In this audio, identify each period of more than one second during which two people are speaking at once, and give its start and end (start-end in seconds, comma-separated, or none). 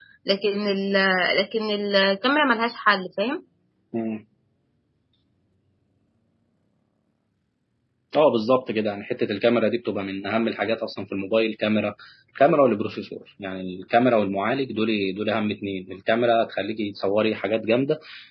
none